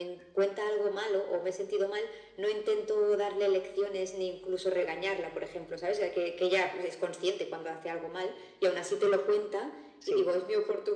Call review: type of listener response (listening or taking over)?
listening